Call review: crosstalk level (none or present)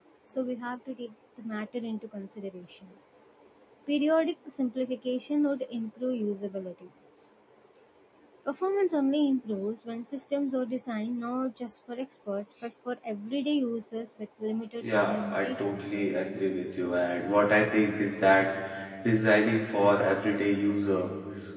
present